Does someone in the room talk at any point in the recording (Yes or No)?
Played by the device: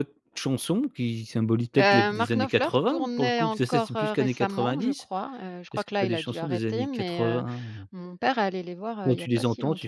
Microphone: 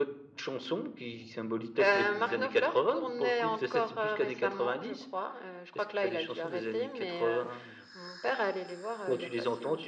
Yes